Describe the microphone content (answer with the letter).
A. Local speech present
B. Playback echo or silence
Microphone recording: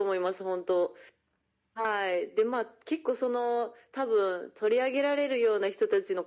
B